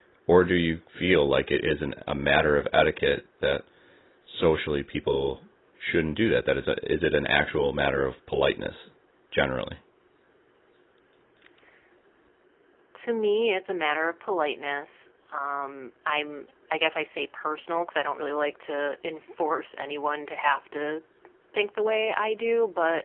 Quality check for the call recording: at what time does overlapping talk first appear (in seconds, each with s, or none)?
none